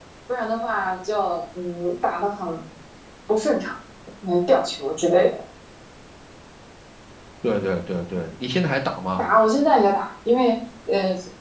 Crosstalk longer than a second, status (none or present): none